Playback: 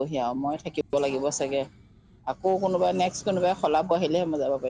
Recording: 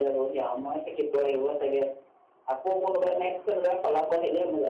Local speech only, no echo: none

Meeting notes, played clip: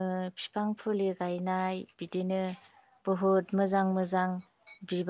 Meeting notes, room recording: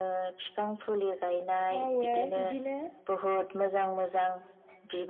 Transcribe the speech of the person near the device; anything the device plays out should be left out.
मावो बिदिनो

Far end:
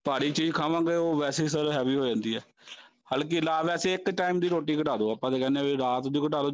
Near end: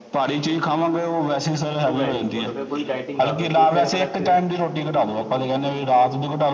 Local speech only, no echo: ਉਹ ਵੈਰੀ ਗੁੱਡ ਫਿਰ ਪੂਰੀ ਡਾਇਟਿੰਗ ਕਰ ਰਹੇ ਤੁਸੀਂ ਤਾਂ ਕਿਤੇ ਨਾ ਕਿਤੇ

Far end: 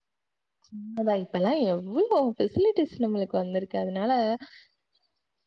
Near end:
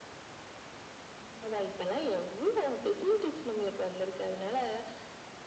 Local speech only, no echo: none

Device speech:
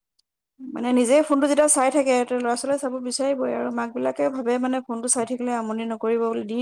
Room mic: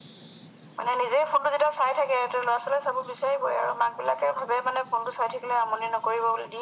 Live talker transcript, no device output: none

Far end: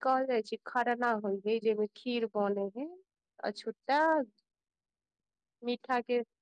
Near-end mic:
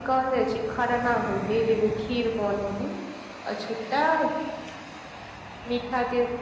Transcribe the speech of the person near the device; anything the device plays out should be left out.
none

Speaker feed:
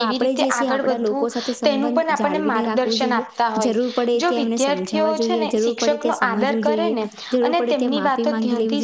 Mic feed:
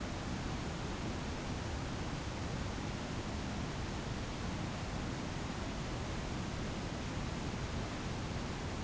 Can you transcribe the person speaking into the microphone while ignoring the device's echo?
none

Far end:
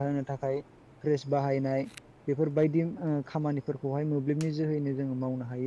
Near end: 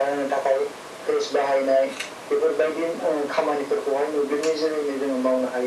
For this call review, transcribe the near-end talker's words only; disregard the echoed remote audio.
none

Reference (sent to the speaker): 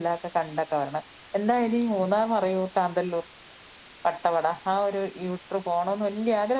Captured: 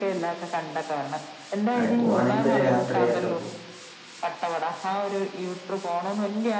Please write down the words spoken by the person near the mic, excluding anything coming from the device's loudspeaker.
അതെ പോവാണെങ്കി ഒരു രാത്രിയൊക്കെ

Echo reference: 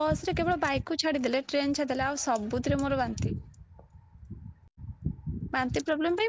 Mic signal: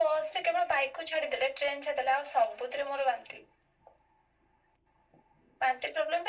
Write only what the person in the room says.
none

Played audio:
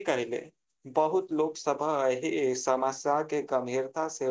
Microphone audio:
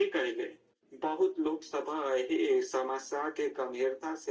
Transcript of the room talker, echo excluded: none

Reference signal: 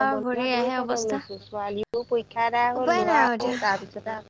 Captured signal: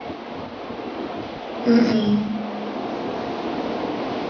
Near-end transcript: উম

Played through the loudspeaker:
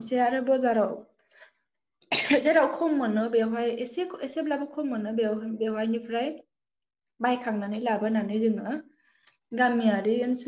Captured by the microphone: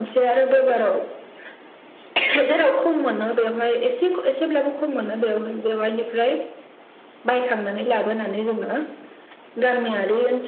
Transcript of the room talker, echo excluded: none

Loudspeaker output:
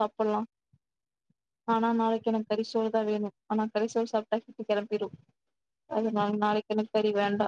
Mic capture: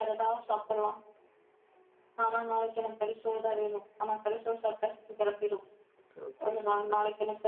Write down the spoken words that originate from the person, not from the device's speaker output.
சூப்பர் சூப்பர்

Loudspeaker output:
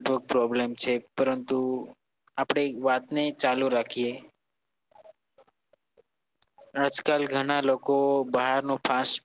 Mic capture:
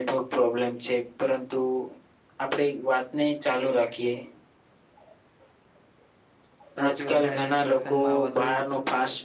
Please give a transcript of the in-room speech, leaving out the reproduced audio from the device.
સૌથી વધારે પ્રસંગમાં વધુ

